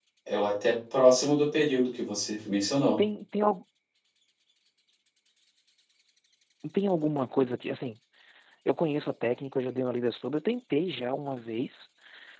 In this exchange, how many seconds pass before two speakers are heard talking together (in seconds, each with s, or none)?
none